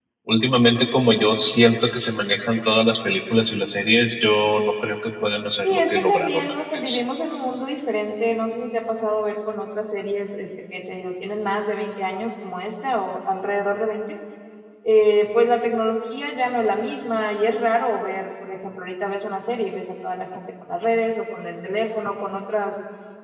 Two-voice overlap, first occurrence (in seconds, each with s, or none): 5.6 s